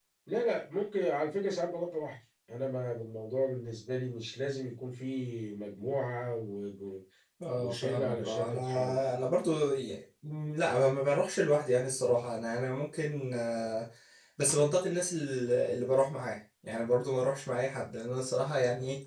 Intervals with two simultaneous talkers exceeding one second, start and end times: 7.6-9.0

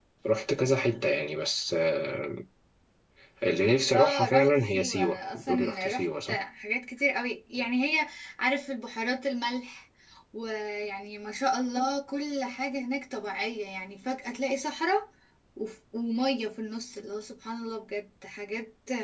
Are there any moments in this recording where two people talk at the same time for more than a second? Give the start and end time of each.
3.9-6.4

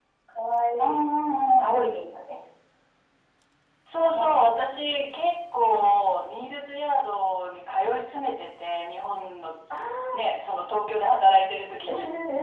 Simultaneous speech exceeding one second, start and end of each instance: none

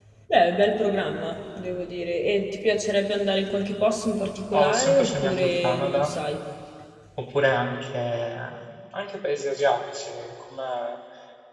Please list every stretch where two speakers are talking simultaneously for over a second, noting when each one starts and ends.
4.5-6.1

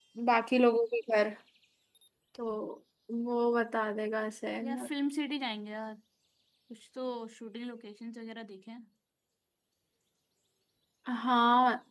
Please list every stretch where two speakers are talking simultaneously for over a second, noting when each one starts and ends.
none

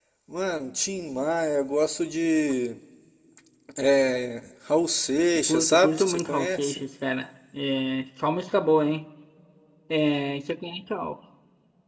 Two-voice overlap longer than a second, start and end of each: 5.5-6.8

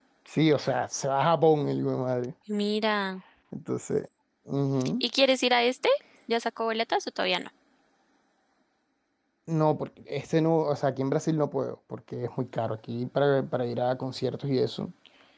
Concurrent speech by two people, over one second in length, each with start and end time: none

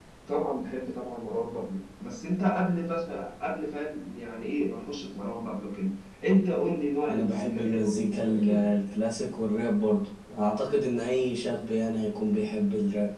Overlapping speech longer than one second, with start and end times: 7.1-8.7

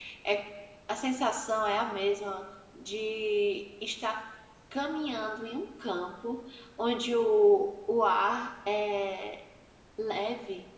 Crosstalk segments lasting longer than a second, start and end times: none

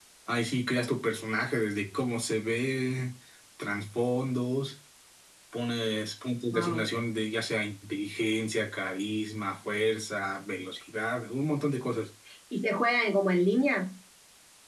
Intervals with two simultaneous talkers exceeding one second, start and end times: none

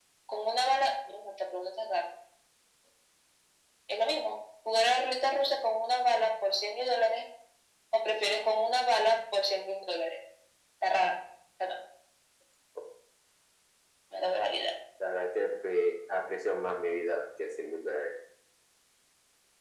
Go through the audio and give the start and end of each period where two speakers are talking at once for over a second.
none

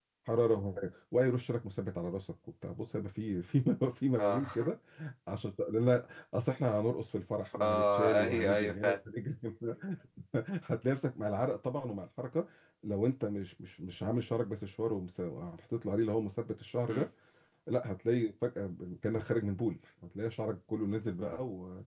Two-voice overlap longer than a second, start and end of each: 7.6-9.0

